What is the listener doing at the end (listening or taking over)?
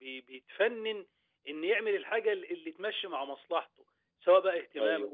listening